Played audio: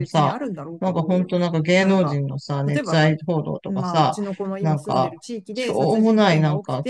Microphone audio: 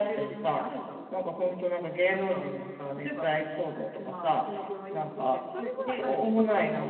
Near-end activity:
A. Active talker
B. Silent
A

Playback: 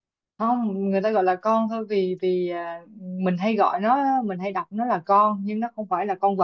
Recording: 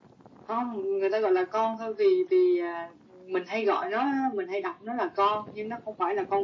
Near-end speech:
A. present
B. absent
B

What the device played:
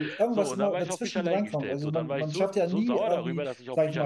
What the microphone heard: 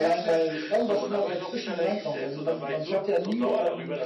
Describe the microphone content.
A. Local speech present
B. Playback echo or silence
B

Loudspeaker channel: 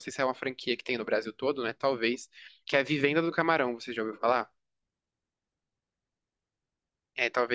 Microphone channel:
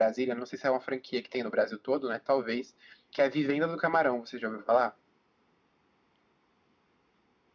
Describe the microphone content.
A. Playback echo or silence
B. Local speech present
A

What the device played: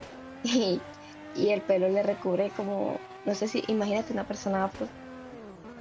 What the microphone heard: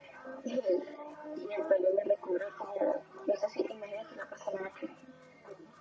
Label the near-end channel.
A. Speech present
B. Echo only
B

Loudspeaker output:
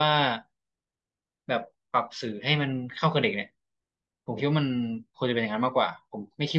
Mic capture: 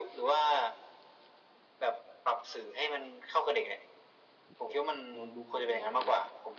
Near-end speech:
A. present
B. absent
A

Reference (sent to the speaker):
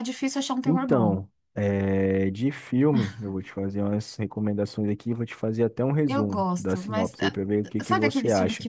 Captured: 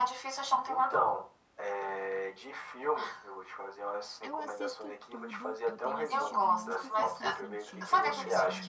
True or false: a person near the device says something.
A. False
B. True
B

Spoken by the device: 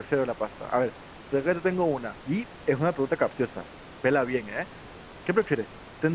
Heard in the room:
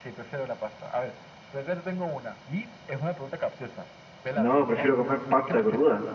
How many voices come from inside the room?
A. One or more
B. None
A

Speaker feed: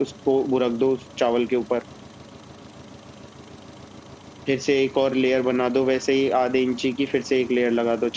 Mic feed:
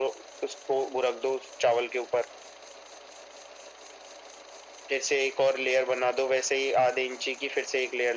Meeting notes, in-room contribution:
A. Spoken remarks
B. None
B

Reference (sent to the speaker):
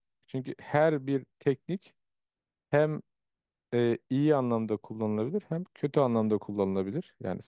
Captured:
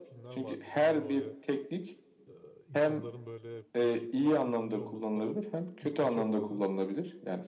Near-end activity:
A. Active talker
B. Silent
A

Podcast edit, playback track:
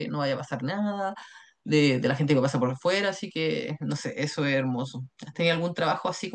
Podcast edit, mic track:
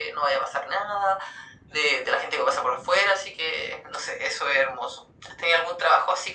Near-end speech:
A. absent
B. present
A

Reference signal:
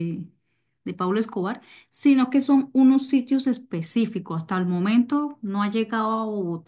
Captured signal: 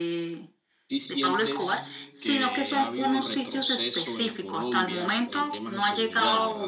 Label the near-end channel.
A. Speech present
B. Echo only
A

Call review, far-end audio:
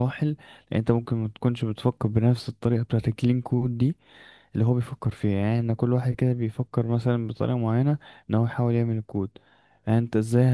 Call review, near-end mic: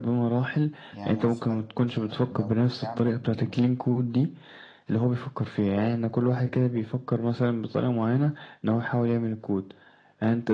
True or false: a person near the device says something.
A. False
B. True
B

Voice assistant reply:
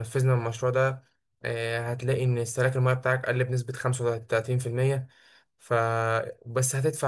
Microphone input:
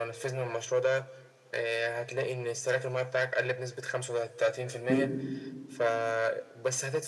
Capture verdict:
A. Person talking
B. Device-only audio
A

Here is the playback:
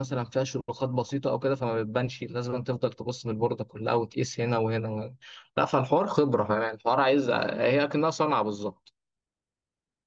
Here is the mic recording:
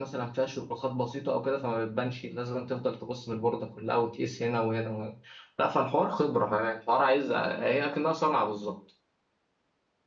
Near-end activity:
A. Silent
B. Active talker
A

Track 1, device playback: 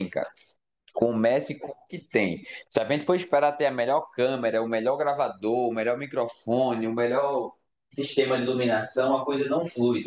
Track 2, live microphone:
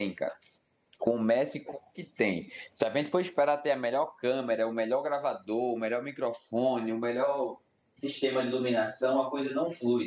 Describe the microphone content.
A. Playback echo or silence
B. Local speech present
A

